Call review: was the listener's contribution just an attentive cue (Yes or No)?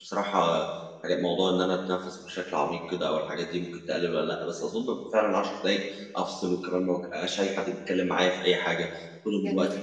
Yes